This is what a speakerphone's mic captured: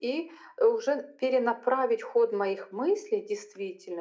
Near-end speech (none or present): none